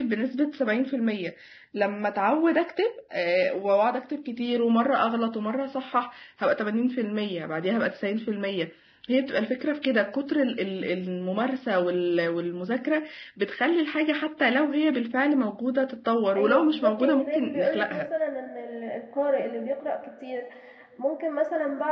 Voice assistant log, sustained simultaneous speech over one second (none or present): present